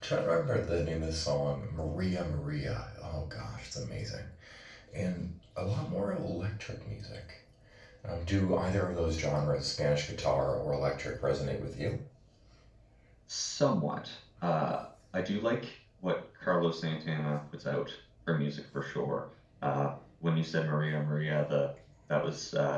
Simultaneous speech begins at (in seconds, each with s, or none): none